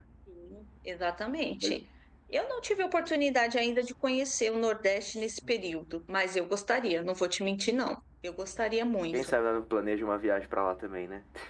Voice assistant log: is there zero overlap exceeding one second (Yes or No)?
Yes